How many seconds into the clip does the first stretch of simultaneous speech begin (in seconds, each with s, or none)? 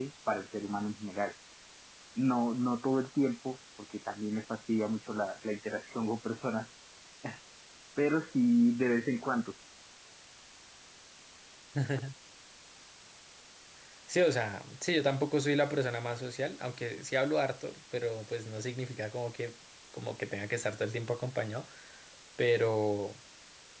none